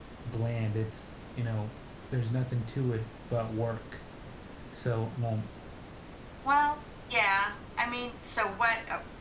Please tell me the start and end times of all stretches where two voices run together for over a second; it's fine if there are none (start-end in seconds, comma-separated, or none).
none